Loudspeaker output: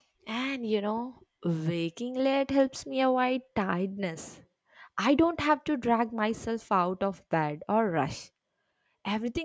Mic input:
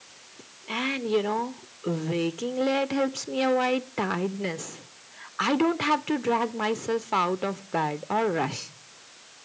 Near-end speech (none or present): none